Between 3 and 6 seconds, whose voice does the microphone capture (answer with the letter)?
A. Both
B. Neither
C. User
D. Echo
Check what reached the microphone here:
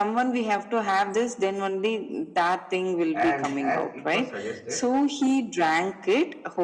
A